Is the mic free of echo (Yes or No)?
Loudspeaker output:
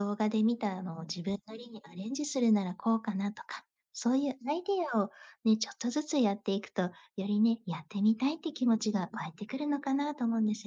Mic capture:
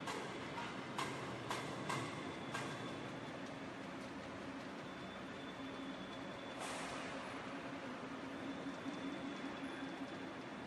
Yes